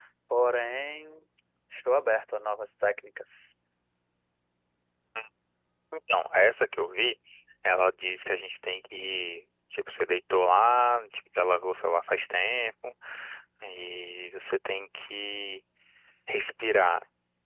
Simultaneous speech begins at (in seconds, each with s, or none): none